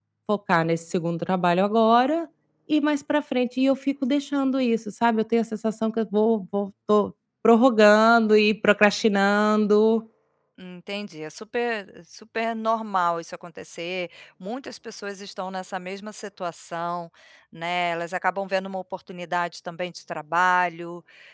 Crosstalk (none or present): none